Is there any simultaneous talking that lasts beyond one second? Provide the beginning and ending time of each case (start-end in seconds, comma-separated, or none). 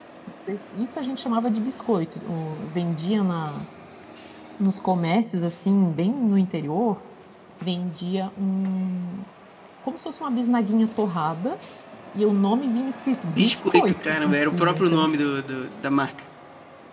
13.3-15.1